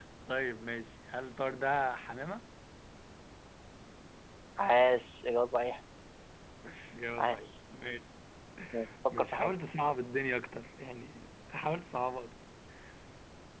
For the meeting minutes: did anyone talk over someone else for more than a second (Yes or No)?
No